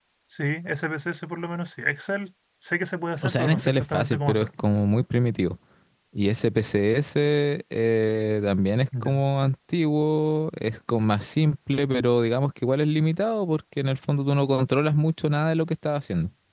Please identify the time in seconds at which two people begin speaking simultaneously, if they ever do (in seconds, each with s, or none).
3.2 s